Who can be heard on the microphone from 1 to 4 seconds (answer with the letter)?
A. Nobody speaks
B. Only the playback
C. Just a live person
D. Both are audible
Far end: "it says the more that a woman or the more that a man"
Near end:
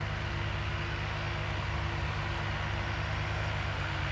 A